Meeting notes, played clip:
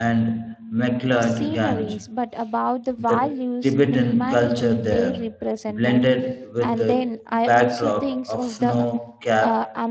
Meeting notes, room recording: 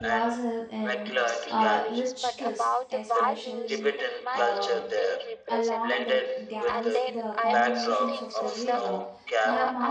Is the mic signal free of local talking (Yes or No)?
No